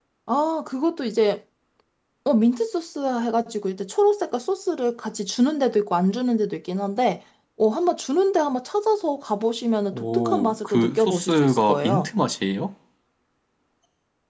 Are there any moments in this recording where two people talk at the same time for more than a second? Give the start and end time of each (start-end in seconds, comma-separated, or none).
9.9-12.1